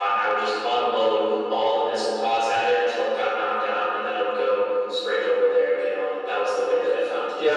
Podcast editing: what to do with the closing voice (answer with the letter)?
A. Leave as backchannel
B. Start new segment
B